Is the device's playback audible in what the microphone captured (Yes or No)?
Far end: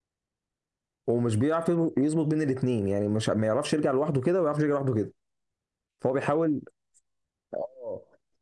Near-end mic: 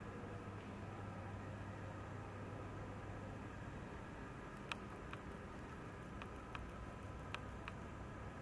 No